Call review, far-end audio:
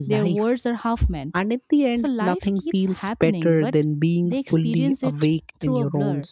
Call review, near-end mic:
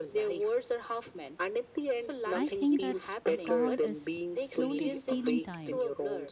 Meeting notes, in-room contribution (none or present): present